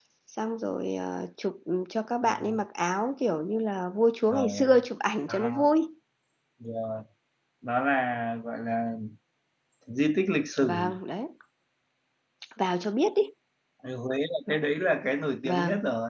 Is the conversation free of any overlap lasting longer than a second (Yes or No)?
Yes